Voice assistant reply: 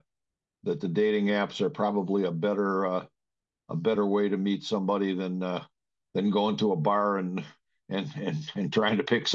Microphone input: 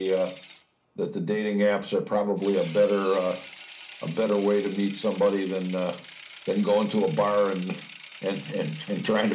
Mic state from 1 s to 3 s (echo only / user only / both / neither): echo only